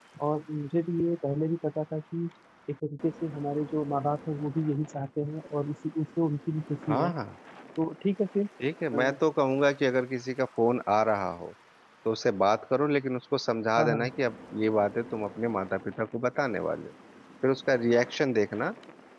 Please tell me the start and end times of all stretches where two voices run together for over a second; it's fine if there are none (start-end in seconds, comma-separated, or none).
none